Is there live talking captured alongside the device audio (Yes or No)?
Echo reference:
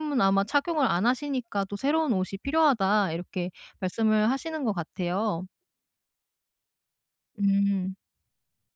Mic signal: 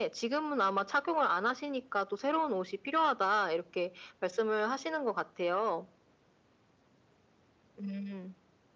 No